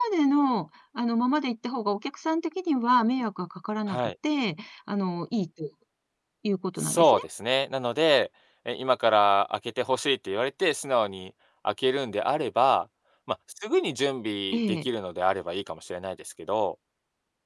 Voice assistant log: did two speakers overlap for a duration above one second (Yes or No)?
No